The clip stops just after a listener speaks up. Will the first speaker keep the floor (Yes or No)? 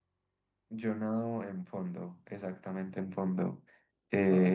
Yes